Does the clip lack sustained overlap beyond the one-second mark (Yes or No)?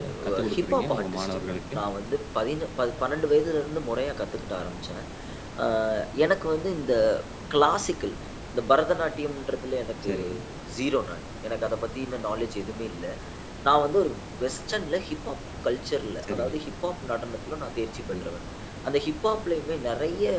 No